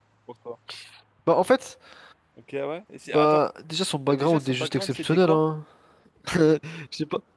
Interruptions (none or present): present